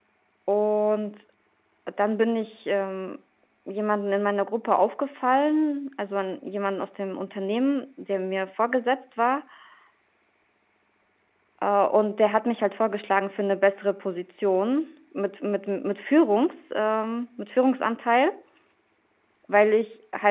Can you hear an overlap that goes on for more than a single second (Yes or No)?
No